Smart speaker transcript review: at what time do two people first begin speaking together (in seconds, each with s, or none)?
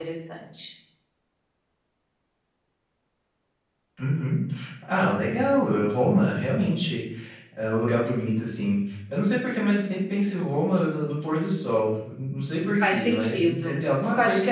12.8 s